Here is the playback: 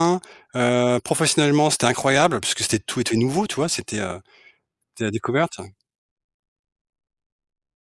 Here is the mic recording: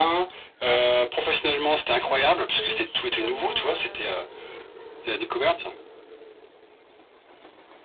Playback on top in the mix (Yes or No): Yes